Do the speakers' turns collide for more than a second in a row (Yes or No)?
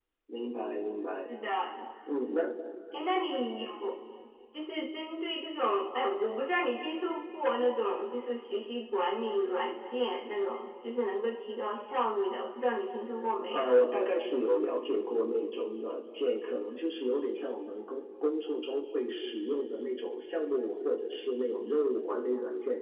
No